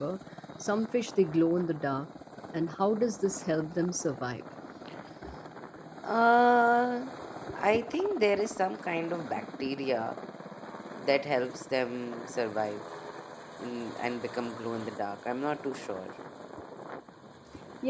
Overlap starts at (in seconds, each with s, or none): none